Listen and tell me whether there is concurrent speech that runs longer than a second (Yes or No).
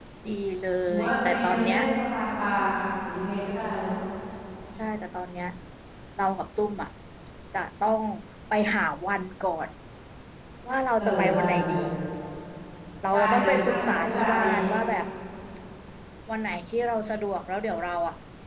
Yes